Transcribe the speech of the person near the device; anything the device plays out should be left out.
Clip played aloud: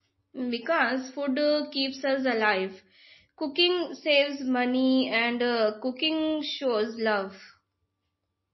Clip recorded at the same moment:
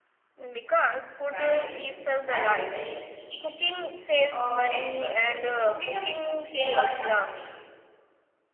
Nice. That is very sweet. Um, next question Is cooking a s- skill or an art for you?

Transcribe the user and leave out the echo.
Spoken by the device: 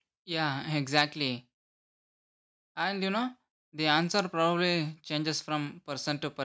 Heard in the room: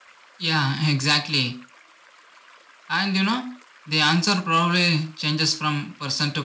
none

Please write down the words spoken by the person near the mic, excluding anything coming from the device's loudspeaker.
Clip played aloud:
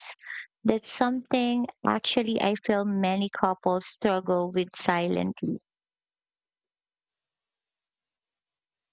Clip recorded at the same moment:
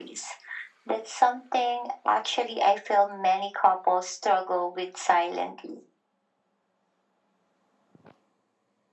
none

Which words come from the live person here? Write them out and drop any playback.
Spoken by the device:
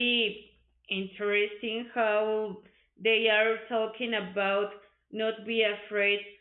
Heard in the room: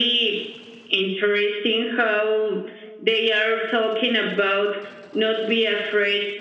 none

